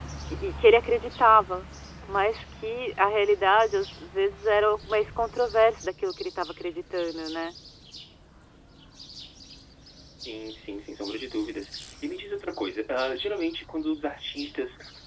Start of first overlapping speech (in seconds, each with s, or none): none